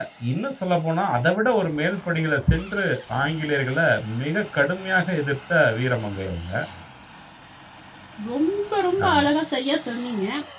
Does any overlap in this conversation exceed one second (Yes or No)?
No